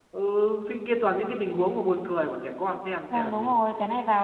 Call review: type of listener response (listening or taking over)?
taking over